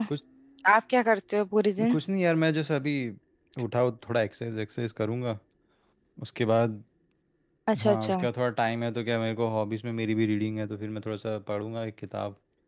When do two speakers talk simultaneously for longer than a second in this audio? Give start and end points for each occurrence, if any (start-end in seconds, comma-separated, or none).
none